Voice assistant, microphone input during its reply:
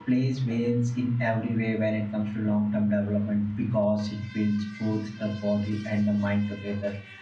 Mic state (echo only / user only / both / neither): user only